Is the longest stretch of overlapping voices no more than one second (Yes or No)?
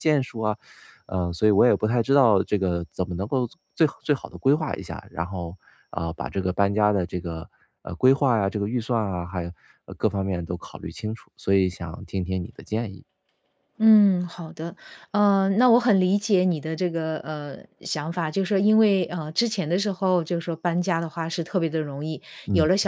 Yes